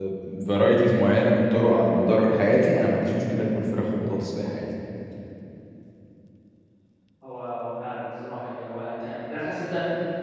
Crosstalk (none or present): none